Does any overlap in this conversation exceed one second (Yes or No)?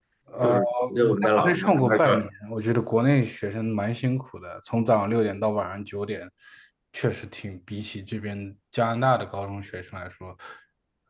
Yes